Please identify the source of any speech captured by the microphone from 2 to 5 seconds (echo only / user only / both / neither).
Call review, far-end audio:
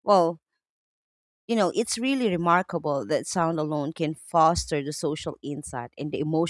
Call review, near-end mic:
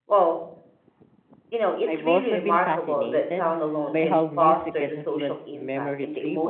both